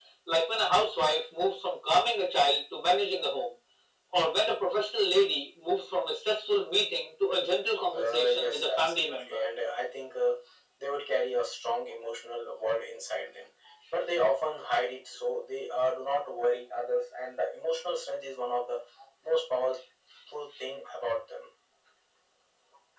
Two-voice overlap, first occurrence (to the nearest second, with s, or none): 8 s